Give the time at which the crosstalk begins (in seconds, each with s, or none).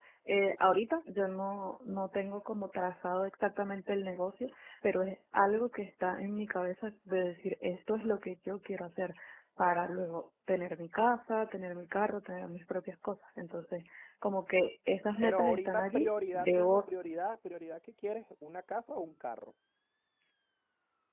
15.2 s